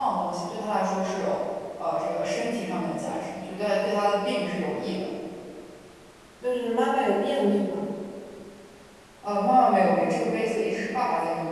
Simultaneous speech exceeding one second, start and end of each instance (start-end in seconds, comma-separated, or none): none